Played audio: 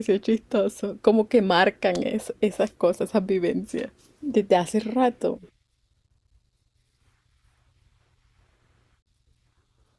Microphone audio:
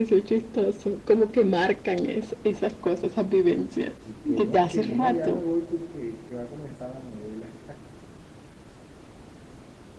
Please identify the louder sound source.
echo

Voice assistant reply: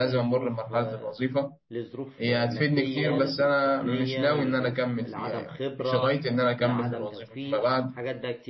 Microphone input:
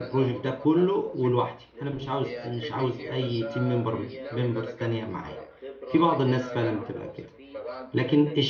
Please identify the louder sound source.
user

